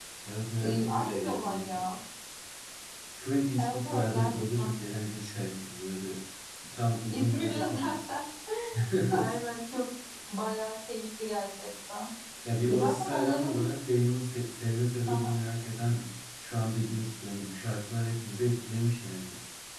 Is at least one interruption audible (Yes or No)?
Yes